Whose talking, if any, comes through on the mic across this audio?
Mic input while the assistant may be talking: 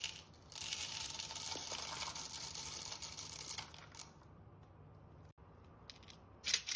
neither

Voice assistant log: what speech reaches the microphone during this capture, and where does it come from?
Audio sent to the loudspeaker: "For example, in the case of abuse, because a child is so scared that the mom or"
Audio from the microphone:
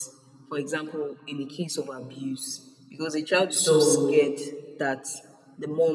both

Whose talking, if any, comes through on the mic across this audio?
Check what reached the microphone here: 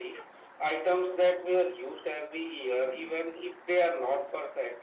echo only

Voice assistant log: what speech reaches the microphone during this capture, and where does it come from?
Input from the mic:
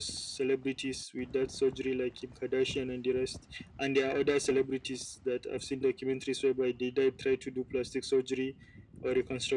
echo only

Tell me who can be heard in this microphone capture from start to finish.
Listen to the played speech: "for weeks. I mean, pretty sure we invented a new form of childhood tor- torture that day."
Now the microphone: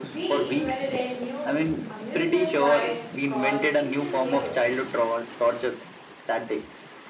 both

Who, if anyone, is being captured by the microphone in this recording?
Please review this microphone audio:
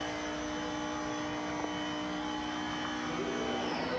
neither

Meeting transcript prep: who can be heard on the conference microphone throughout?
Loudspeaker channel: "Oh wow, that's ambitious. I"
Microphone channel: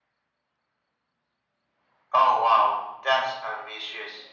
echo only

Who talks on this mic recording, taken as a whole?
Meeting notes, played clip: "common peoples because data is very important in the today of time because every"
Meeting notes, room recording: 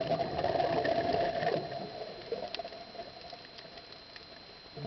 neither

